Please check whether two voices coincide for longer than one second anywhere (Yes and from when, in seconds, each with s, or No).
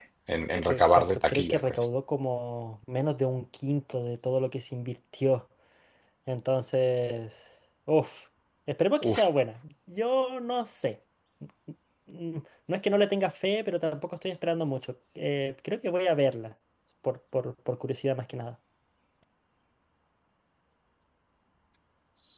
Yes, from 0.7 s